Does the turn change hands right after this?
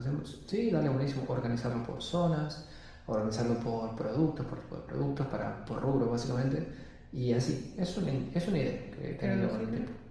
Yes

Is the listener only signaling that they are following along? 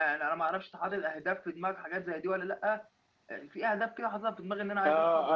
No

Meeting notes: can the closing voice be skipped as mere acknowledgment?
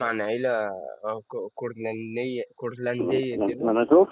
No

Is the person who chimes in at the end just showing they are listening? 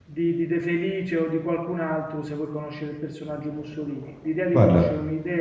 Yes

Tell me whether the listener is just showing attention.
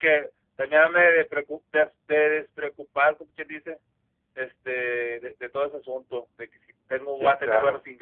Yes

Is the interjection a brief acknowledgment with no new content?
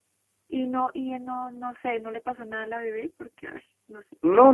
No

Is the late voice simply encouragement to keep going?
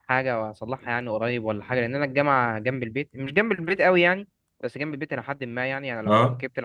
Yes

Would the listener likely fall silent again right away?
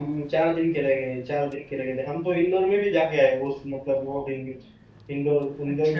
No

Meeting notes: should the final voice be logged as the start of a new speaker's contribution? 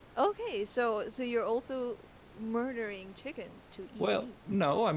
Yes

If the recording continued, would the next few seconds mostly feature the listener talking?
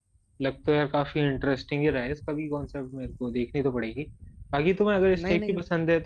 No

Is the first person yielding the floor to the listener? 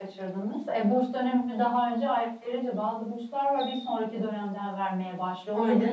No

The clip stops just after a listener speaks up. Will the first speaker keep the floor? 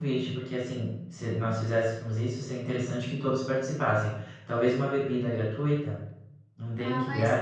No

